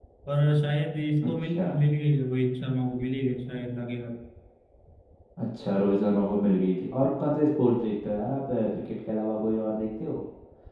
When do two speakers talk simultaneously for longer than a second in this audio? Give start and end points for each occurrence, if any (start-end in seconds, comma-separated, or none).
none